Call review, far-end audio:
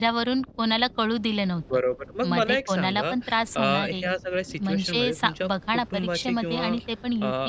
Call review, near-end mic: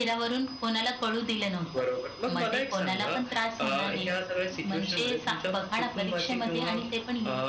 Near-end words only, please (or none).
none